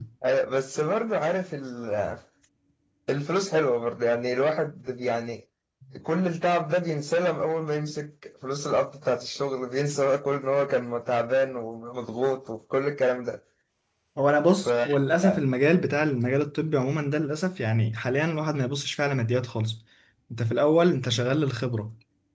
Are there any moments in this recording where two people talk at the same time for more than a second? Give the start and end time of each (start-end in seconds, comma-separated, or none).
none